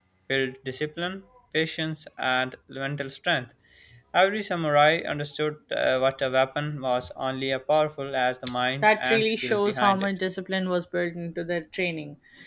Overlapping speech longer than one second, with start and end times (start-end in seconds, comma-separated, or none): 8.8-10.1